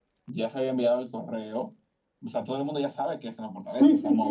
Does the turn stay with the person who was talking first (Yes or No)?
No